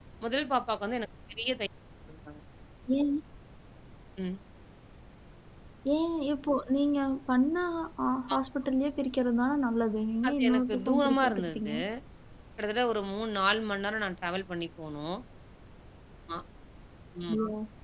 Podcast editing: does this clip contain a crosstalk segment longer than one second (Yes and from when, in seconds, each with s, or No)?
Yes, from 10.2 s